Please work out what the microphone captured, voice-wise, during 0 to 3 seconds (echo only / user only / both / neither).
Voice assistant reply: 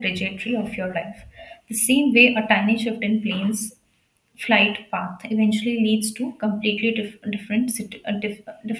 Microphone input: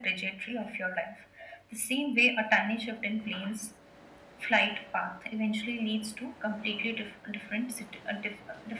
echo only